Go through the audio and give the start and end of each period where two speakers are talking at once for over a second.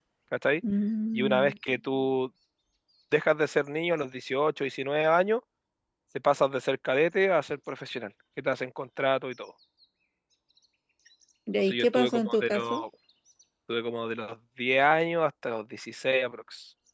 11.6-12.8

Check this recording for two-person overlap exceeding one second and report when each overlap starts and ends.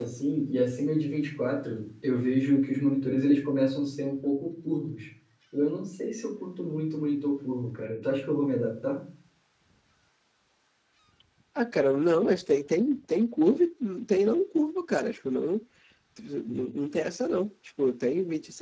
none

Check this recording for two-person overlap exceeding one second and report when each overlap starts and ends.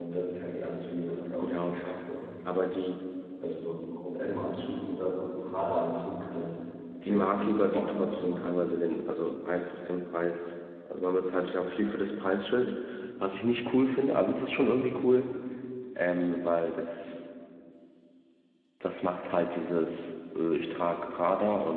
7.1-8.4

